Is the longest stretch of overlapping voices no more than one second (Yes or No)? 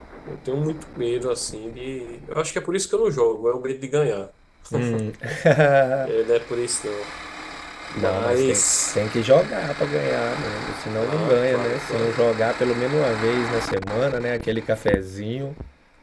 No